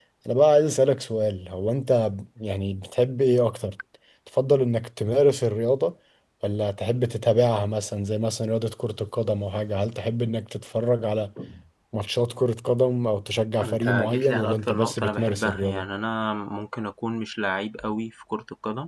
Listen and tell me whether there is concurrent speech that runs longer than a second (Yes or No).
Yes